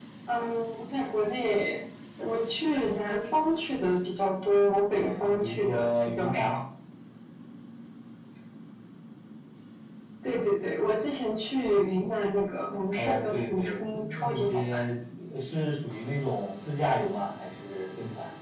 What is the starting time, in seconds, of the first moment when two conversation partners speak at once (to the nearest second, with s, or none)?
5 s